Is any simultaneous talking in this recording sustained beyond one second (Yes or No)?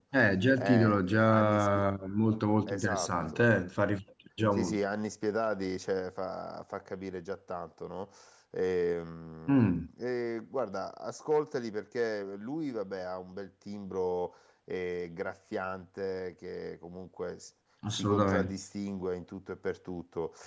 Yes